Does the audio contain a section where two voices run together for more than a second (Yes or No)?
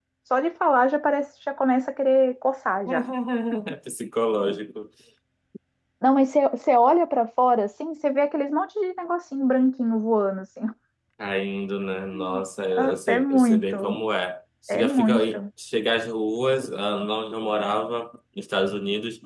Yes